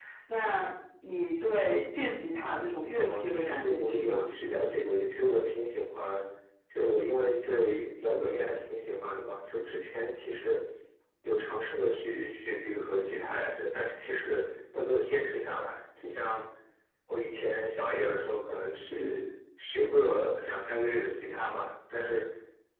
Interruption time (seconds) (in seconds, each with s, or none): 2.9 s